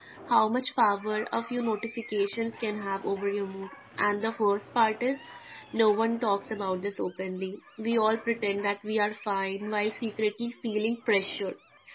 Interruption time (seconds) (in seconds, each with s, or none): none